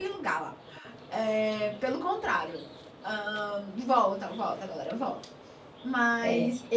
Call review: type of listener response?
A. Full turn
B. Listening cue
B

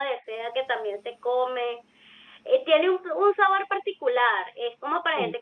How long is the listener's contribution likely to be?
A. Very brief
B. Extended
A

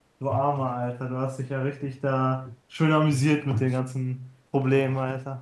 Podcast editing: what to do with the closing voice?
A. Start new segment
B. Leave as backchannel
A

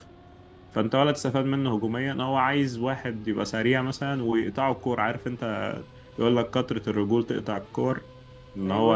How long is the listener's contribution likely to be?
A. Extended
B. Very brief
B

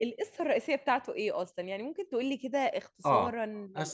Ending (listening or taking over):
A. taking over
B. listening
A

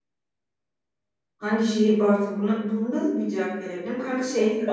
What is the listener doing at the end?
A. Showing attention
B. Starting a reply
A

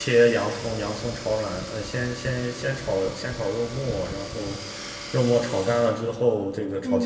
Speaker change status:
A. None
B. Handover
B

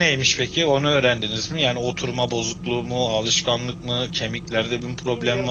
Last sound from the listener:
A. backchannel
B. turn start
B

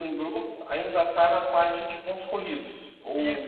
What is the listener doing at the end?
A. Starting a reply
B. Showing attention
A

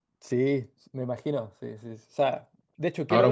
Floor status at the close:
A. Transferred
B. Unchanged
A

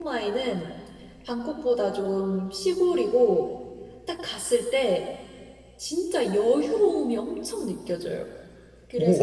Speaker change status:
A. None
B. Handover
B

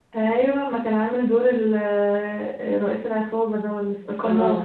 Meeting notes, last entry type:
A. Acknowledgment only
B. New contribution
B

